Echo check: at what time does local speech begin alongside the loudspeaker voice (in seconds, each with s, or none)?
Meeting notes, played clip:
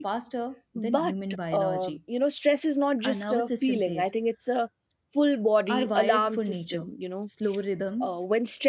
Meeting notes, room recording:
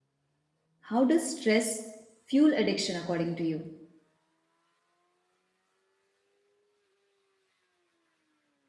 0.9 s